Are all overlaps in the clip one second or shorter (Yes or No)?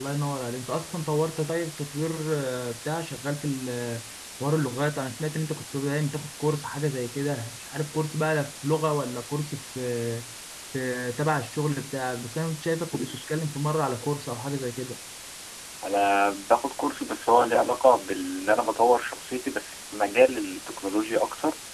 Yes